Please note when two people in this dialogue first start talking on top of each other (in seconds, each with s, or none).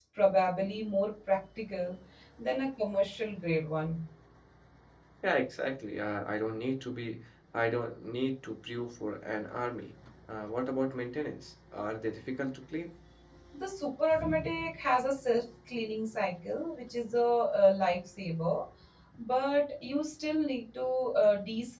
none